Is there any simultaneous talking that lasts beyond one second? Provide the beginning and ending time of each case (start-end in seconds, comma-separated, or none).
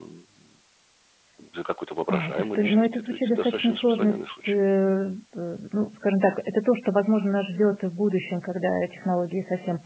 2.1-4.5